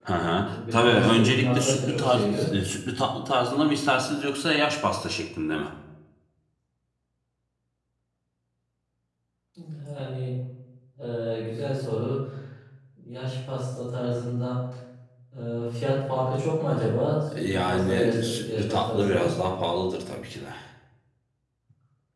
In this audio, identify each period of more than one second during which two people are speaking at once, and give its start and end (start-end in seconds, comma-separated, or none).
0.5-2.5, 17.5-19.3